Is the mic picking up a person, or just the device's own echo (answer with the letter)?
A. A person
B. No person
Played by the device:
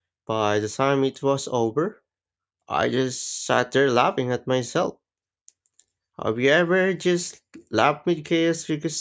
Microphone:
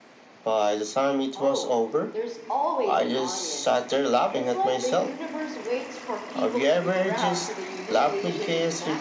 A